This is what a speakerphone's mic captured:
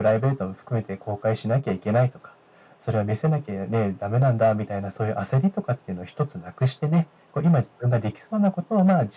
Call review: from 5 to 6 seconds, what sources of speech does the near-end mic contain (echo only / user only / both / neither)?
echo only